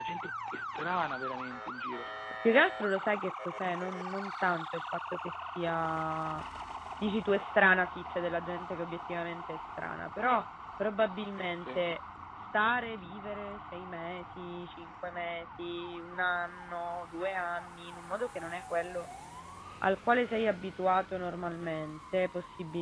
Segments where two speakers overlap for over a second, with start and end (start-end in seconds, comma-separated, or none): none